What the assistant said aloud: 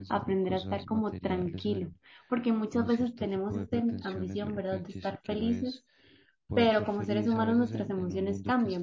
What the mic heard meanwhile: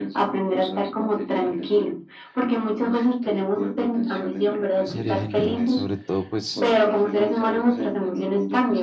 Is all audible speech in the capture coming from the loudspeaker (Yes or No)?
No